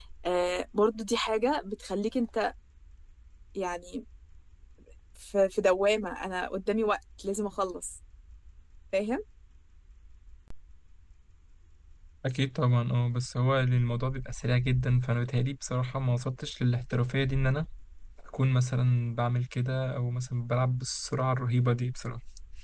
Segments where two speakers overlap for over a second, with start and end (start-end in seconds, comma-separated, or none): none